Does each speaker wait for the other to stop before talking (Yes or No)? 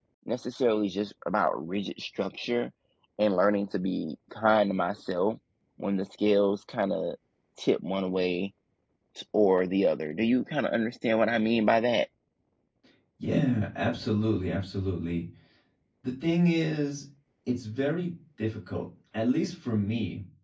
Yes